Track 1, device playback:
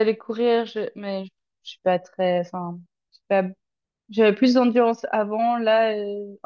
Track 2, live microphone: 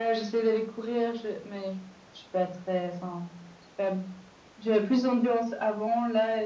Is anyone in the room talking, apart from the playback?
No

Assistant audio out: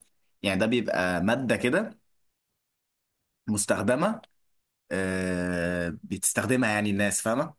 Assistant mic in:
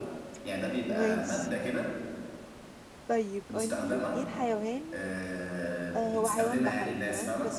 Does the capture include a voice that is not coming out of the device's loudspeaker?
Yes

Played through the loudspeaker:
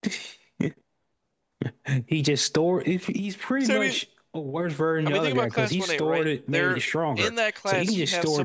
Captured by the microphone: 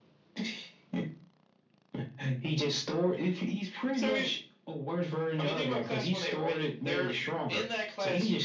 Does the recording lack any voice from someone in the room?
Yes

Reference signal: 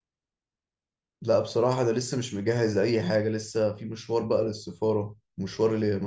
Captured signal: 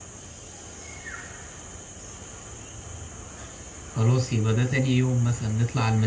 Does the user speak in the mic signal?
Yes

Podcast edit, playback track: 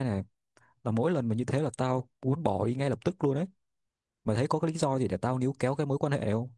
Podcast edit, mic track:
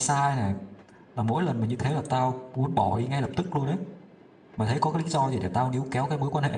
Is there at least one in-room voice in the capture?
No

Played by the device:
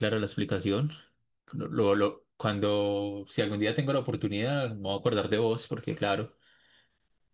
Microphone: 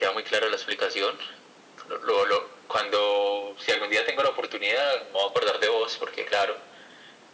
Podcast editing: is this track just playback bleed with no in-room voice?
Yes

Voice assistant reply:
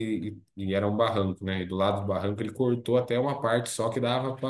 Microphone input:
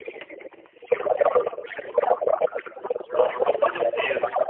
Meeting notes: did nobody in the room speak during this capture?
No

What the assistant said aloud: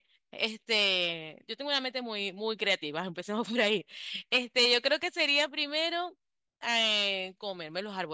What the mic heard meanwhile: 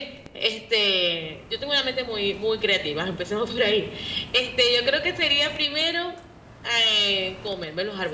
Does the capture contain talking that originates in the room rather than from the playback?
No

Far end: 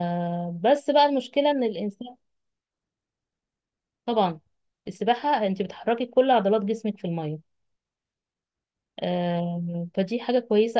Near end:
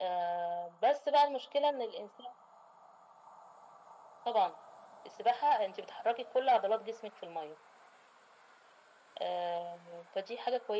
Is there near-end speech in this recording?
No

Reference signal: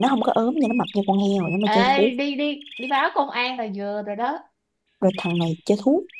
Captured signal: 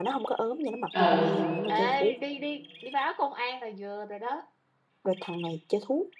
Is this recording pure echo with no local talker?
No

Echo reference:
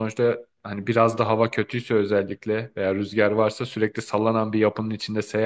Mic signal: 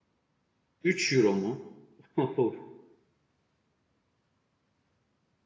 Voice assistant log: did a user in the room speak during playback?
Yes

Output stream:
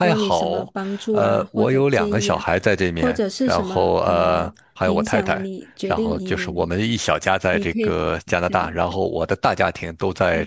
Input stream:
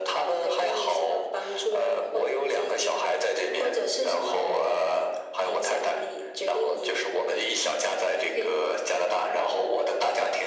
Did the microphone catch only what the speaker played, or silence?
Yes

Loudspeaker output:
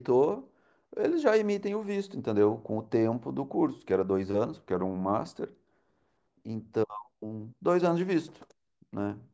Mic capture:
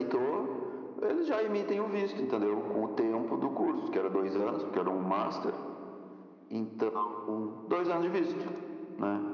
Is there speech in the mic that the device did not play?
No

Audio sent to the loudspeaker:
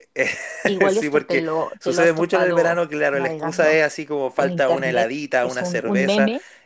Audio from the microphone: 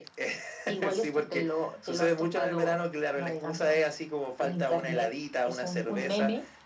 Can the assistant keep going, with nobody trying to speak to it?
Yes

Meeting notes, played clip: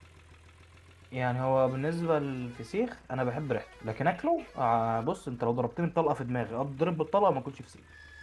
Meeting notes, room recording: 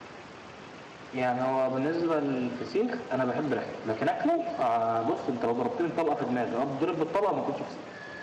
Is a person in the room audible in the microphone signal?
No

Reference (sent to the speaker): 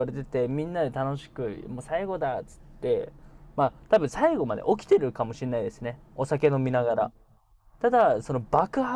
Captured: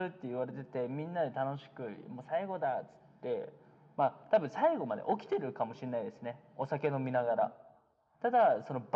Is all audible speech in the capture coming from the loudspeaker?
Yes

